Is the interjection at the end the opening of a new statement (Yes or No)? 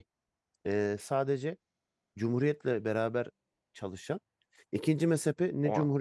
No